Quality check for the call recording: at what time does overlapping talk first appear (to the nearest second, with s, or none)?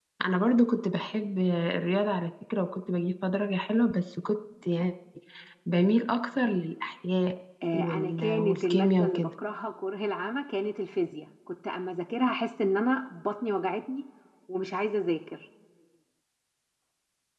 8 s